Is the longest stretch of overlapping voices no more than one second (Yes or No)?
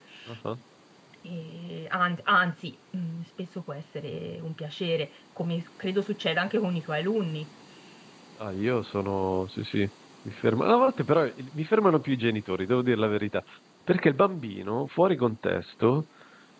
Yes